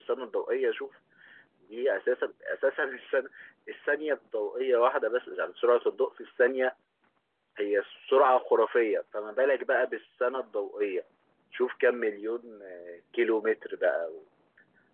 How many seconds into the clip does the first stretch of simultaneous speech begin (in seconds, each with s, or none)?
none